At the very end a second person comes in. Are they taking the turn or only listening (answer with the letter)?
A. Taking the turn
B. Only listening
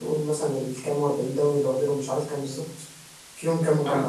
B